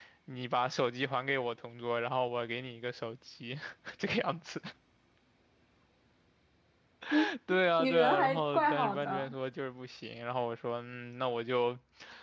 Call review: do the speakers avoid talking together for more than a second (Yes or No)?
No